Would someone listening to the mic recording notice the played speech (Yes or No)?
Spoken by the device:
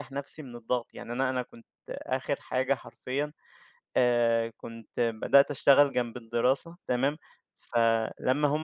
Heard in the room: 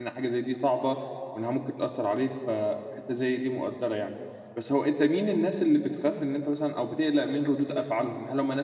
No